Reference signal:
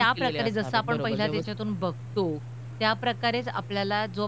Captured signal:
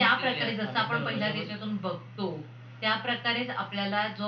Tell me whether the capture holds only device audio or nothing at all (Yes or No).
Yes